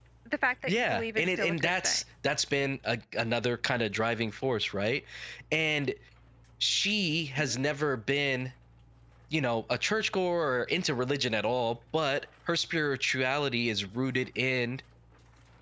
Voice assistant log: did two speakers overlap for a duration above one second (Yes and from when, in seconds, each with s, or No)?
Yes, from 0.6 s